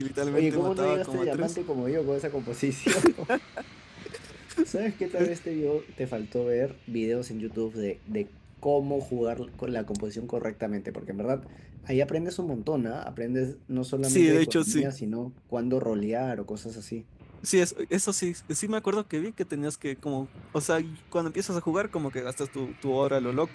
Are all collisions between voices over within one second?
No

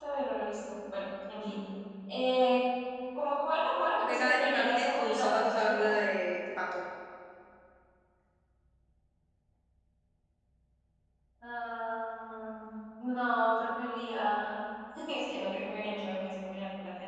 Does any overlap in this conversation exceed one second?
Yes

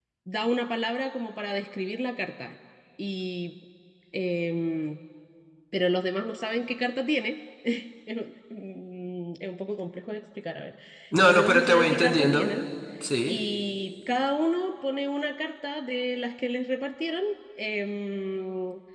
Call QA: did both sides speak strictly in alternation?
No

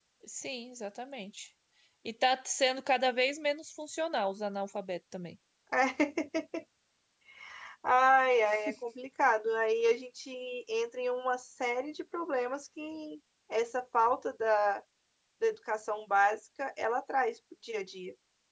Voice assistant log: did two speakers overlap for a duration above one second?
No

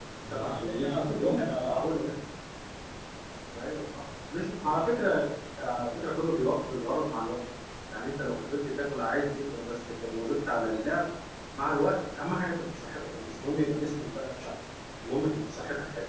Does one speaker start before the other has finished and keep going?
Yes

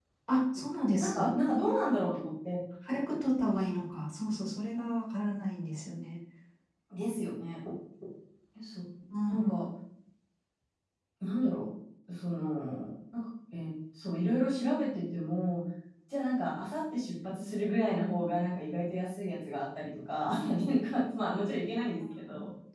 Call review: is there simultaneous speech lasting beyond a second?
No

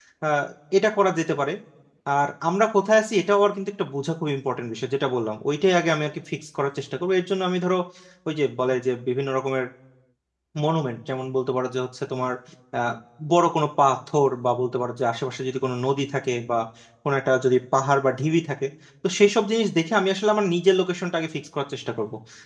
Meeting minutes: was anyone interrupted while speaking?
No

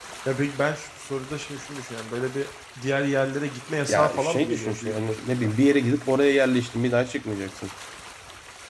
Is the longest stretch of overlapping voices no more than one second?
No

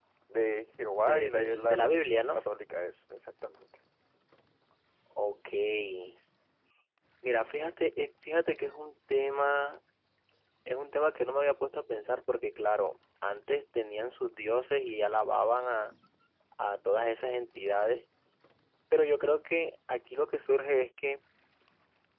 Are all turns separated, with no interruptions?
No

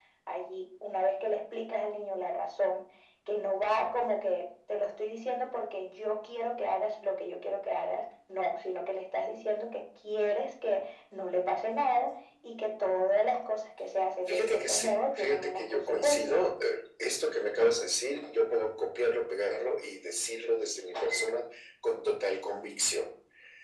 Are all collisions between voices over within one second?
No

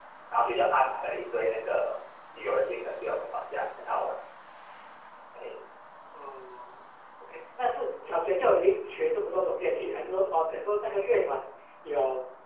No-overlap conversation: Yes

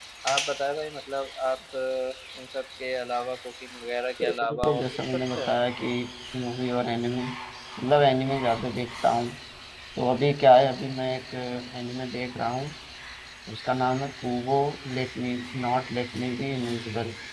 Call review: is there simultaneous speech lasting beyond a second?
Yes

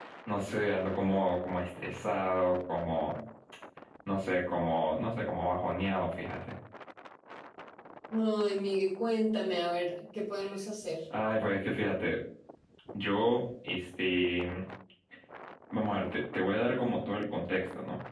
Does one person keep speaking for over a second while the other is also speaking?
No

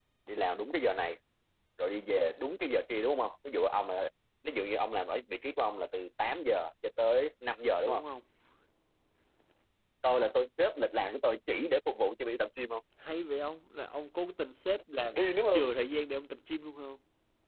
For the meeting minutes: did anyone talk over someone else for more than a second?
No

